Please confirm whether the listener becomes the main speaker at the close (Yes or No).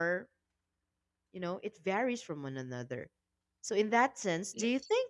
No